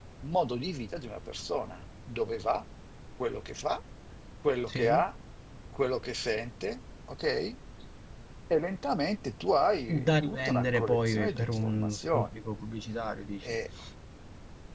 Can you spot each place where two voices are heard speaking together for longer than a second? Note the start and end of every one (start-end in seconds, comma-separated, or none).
10.0-12.3